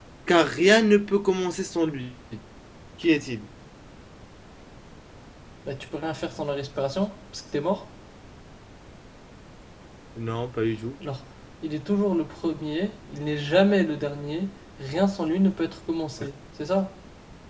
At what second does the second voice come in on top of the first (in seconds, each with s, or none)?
none